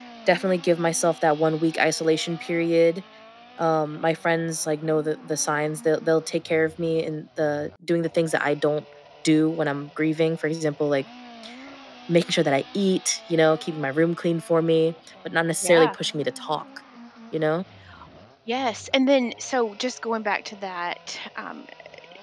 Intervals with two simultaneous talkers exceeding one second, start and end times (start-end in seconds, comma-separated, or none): none